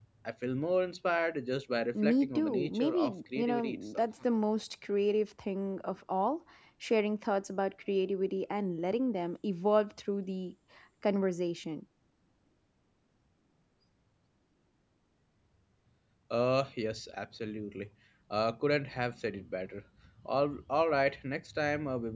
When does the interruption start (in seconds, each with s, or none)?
2.0 s